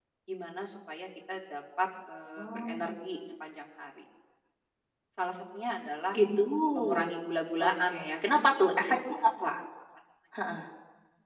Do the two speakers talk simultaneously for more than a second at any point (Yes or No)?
Yes